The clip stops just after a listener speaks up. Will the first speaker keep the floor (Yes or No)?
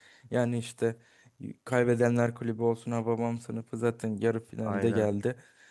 Yes